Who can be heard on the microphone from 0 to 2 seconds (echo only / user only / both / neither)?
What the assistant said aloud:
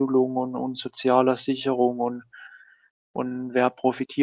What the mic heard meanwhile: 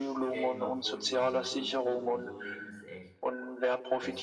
both